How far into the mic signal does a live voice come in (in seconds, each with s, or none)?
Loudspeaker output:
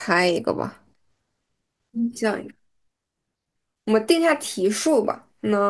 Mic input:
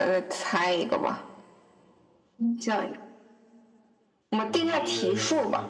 4.4 s